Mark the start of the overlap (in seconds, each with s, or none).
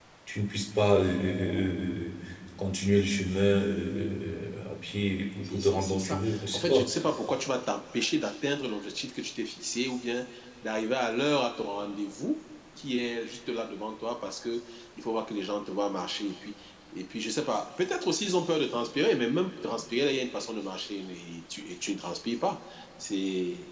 5.4 s